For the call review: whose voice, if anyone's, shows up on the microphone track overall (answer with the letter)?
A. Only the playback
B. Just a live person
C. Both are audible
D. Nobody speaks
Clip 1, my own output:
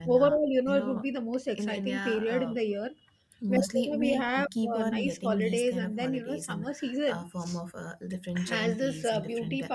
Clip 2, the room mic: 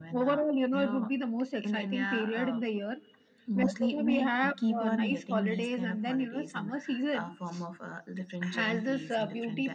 A